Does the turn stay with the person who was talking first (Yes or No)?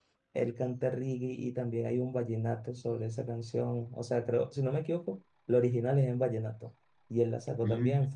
Yes